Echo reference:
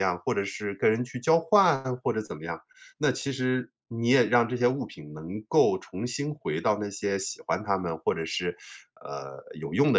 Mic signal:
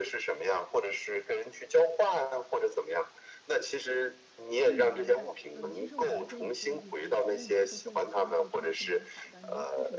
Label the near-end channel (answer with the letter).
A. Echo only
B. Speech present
B